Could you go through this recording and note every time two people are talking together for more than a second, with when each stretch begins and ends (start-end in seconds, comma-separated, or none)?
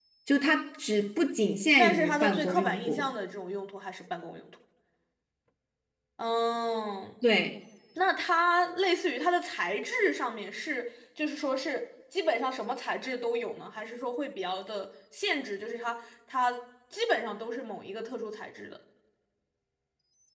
1.8-3.0